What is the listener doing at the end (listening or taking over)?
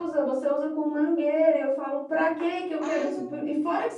listening